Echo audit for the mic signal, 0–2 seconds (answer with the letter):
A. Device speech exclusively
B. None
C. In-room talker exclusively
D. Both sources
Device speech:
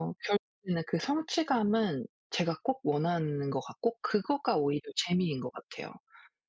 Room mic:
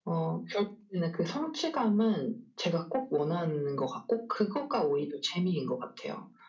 A